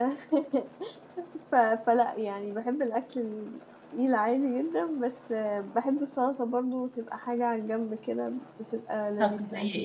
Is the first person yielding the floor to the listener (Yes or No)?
Yes